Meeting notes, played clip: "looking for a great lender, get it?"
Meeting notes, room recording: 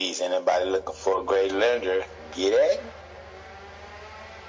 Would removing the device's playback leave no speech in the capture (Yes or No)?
Yes